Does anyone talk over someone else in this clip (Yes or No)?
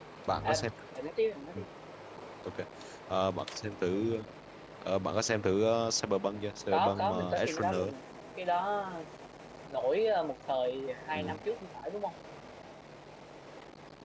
Yes